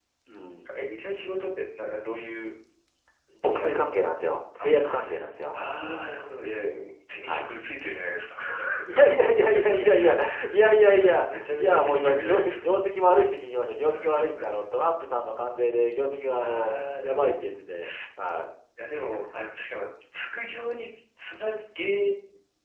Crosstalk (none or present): present